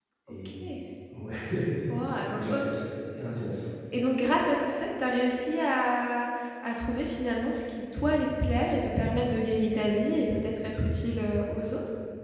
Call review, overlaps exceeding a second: none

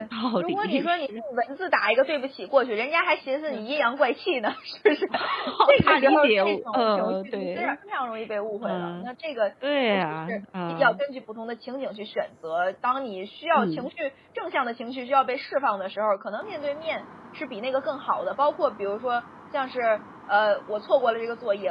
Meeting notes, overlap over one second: present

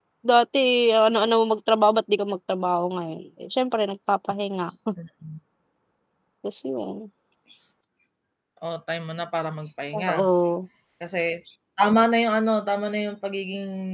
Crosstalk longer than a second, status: none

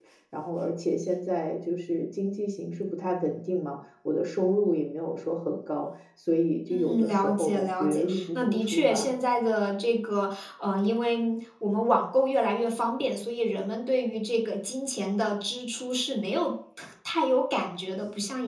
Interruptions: present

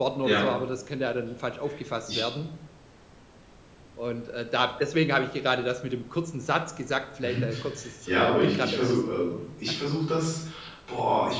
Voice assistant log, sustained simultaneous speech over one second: present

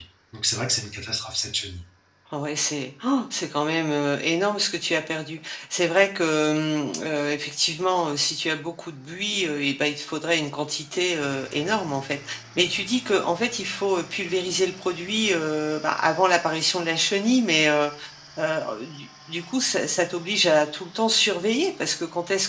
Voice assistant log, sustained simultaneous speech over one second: none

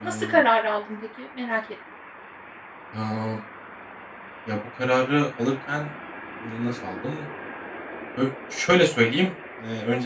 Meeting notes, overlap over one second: none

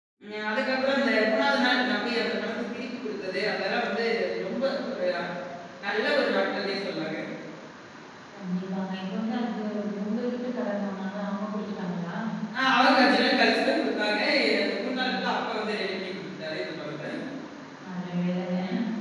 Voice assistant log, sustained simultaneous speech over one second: none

